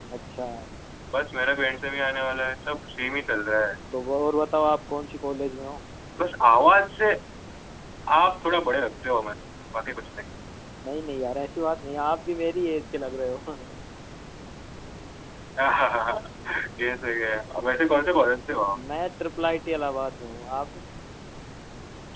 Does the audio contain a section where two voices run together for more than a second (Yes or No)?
No